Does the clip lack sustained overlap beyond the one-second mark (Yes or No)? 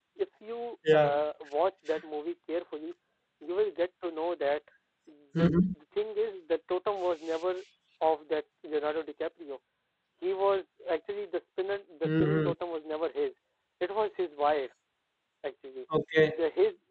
Yes